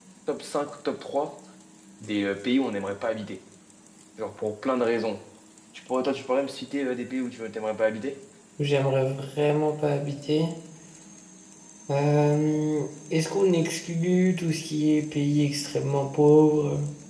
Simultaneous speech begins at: none

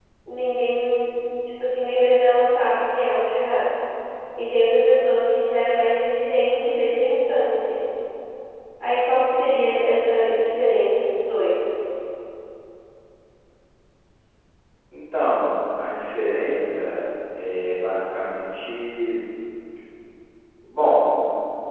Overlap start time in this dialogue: none

